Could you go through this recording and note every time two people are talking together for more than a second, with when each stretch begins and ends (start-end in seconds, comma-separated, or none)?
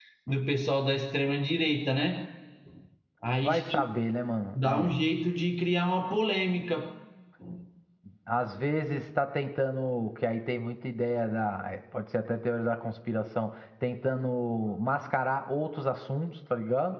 none